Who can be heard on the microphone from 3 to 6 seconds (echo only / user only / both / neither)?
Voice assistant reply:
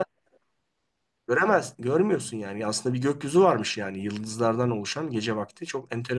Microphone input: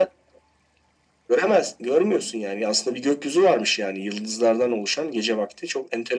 echo only